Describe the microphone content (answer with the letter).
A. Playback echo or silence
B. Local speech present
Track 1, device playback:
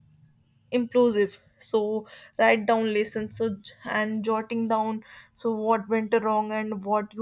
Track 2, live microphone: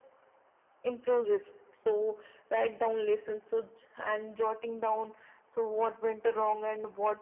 A